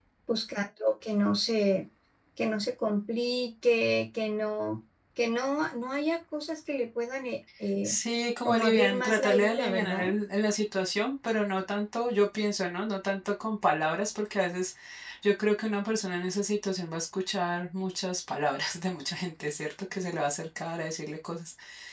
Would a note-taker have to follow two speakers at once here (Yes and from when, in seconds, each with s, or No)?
Yes, from 8.4 s